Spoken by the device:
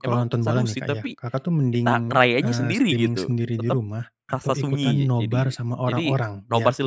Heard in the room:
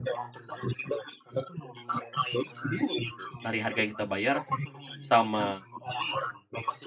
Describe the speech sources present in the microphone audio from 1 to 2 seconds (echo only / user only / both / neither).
echo only